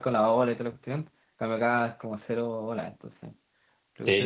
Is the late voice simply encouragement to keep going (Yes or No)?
No